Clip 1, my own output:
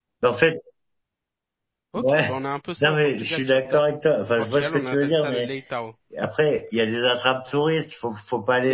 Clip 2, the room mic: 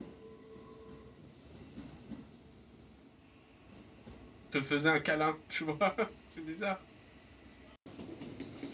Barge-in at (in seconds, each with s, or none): 4.5 s